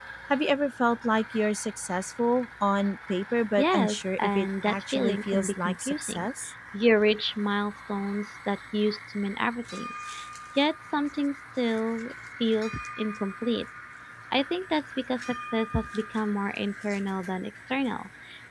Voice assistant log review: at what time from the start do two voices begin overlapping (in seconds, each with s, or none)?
3.6 s